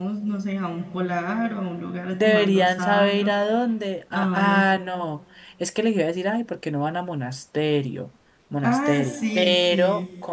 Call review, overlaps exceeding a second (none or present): present